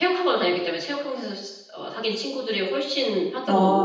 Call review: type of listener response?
taking over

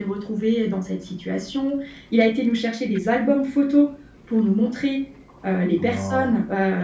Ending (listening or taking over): listening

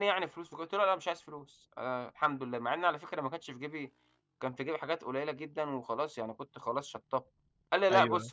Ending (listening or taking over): taking over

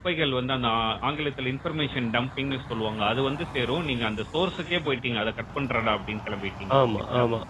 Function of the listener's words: taking over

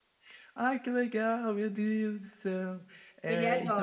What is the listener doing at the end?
listening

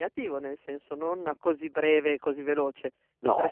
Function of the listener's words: listening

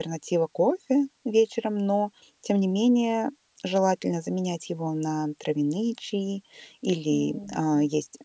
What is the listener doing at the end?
listening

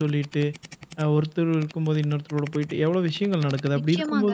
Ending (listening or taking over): taking over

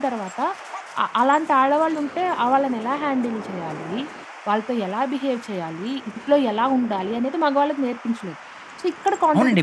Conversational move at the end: taking over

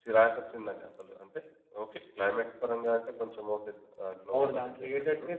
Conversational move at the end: taking over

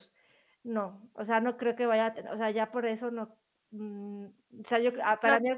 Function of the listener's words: taking over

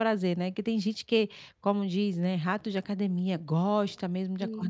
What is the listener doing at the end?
listening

